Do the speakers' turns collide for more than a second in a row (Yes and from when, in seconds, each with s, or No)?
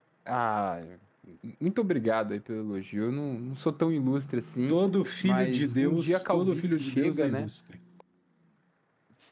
Yes, from 5.2 s